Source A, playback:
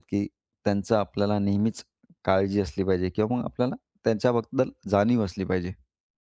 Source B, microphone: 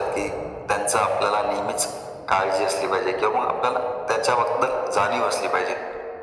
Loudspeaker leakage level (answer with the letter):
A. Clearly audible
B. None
A